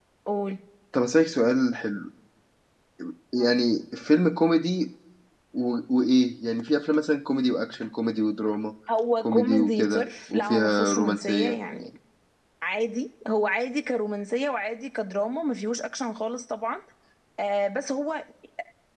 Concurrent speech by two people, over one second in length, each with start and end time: 9.2-11.6

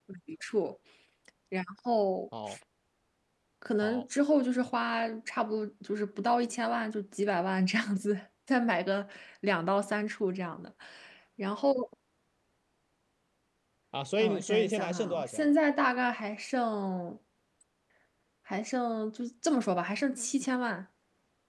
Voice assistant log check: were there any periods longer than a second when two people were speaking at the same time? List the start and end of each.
14.2-15.5

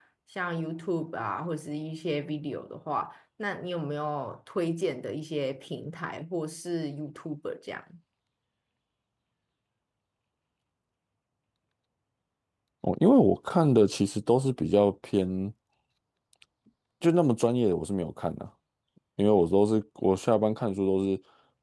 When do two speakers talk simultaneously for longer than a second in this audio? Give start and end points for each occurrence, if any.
none

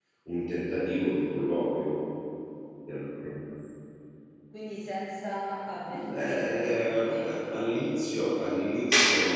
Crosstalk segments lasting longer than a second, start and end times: 5.9-7.4

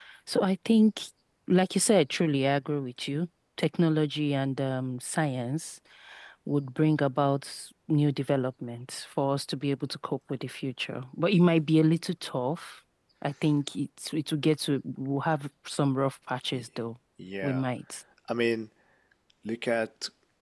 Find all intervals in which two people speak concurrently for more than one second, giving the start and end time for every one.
none

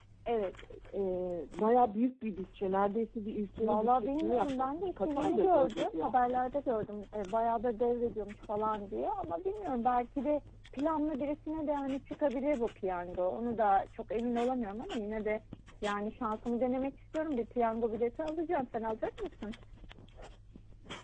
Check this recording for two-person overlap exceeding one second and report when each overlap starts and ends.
3.6-6.1

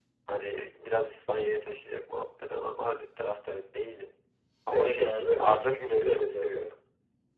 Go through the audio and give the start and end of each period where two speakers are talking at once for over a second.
4.7-6.7

